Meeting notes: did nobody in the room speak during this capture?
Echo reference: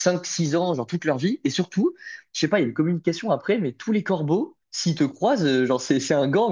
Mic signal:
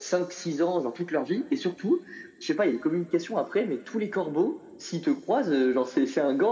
Yes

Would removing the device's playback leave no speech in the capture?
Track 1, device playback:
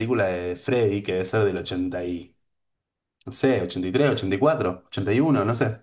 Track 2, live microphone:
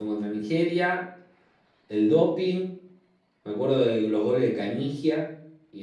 No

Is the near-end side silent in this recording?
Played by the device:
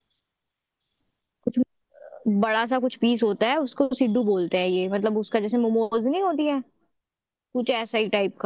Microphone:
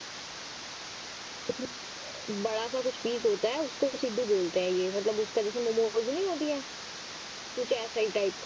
Yes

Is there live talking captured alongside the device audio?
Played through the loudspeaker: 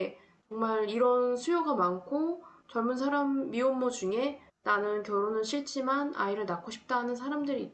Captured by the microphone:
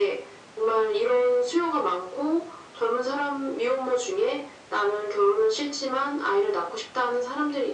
No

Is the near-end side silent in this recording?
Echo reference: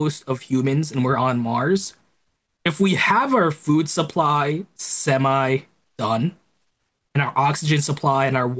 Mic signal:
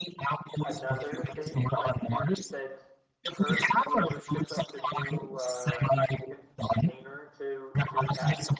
No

